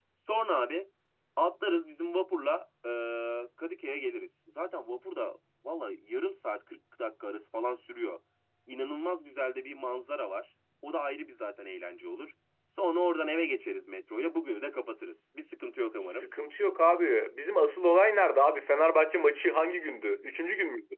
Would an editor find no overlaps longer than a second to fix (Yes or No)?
Yes